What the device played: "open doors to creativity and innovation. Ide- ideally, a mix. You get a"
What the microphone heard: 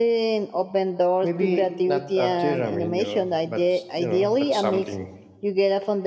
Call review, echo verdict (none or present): present